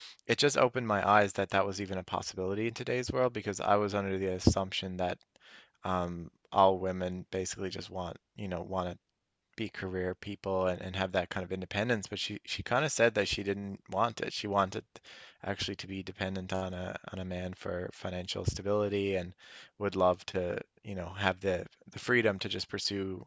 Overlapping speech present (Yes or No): No